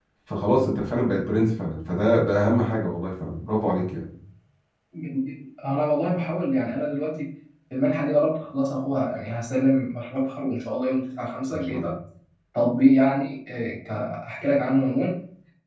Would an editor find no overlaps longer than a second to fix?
Yes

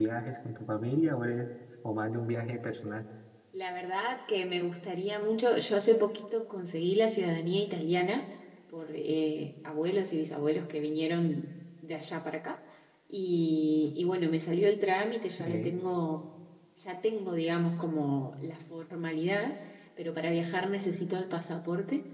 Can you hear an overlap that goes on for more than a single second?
No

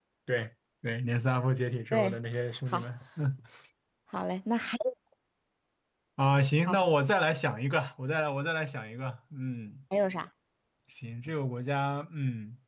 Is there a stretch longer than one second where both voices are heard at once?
No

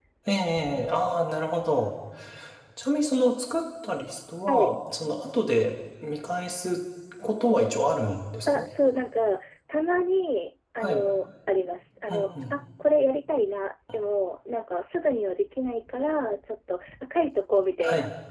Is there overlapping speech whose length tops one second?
No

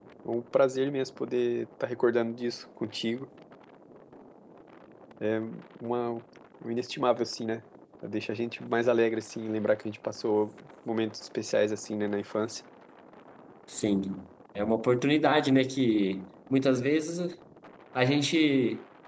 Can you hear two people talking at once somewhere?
No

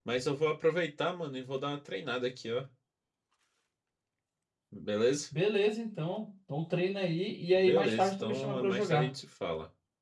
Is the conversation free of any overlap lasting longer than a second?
No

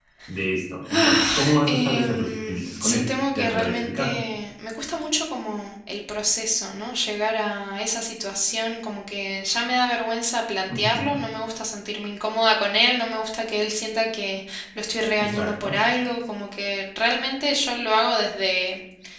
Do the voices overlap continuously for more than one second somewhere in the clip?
Yes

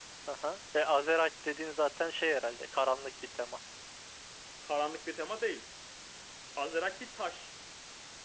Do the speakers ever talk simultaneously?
No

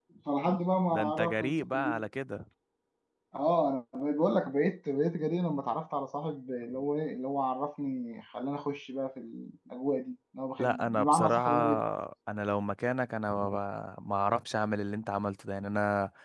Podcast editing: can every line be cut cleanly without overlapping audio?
No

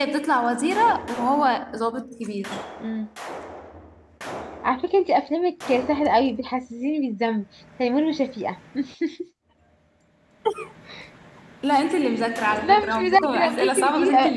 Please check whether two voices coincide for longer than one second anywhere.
Yes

